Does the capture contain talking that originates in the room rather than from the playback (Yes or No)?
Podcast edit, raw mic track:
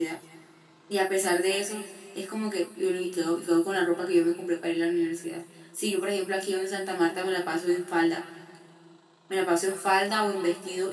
Yes